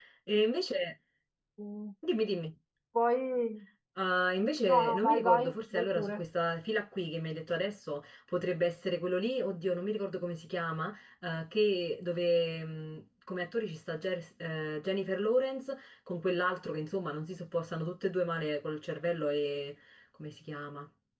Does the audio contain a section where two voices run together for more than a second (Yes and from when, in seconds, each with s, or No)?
Yes, from 4.7 s